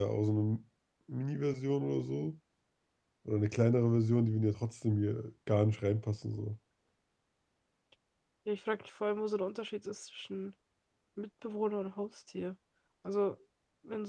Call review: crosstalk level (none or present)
none